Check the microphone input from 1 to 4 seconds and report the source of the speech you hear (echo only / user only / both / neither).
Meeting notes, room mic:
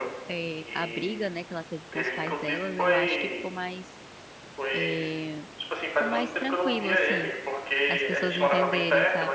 both